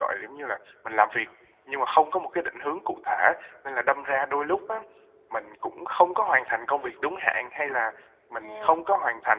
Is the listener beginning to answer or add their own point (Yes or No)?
No